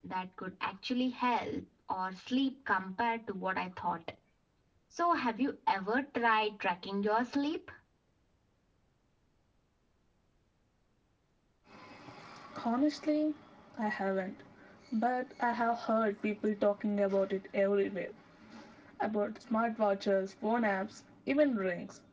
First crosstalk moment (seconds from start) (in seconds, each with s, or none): none